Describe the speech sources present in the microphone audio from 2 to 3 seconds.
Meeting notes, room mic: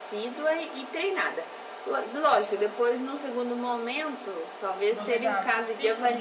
echo only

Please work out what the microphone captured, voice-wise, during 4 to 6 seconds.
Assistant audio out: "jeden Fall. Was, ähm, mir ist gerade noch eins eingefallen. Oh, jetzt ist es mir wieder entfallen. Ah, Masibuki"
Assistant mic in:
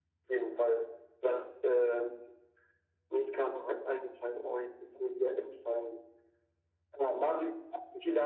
echo only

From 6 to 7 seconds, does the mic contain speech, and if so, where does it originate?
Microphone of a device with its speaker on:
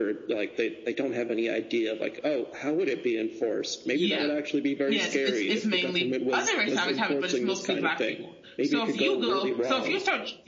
both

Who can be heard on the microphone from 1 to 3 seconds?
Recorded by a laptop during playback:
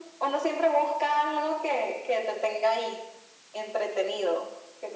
echo only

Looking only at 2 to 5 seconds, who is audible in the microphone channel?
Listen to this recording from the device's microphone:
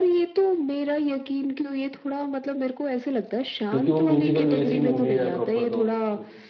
both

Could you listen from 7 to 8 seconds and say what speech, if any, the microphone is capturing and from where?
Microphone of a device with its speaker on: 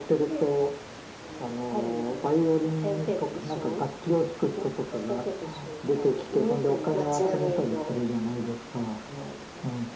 both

